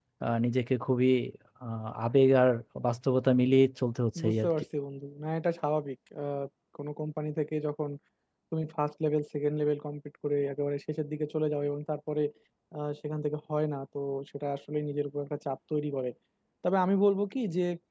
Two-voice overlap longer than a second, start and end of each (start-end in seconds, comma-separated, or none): none